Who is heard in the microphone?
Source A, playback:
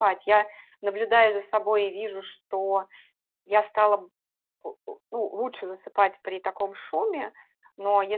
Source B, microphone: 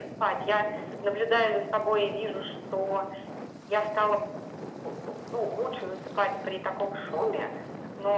echo only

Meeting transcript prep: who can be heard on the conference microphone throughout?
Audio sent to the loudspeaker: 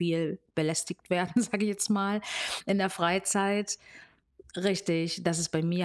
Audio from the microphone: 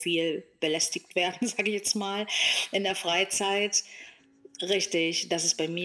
echo only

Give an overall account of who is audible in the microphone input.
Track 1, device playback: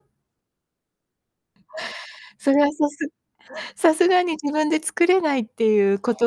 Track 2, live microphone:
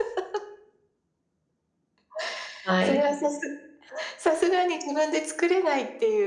both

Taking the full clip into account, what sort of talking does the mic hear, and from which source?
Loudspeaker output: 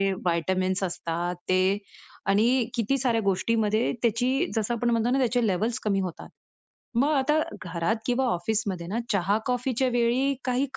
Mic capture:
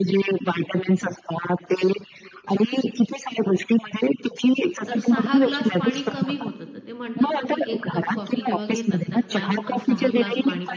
both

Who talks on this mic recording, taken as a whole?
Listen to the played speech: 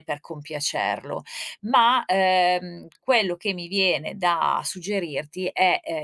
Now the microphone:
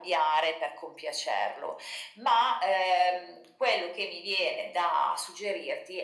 echo only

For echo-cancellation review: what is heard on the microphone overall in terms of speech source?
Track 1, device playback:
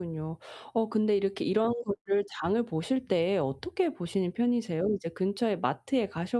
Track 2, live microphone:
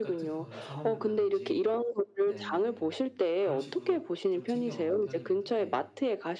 both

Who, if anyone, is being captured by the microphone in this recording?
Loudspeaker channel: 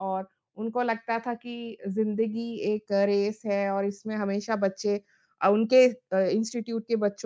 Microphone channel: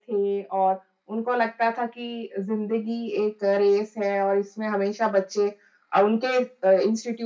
echo only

